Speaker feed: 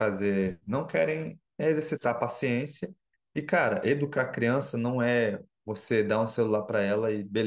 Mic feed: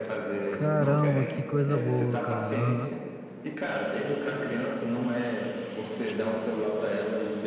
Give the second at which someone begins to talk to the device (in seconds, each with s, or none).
0.5 s